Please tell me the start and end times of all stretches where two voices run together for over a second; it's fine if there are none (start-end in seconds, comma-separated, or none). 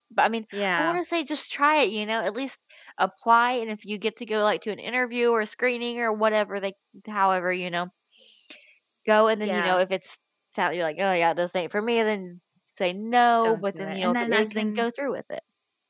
13.4-14.8